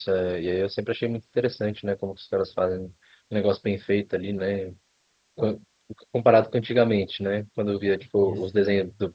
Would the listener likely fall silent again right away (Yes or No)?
Yes